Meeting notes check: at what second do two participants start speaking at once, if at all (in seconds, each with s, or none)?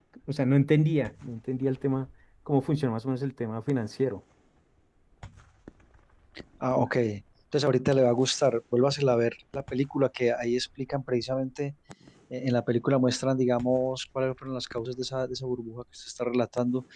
none